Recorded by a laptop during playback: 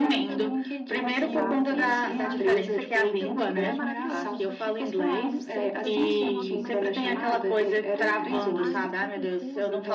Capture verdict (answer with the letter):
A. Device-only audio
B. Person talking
B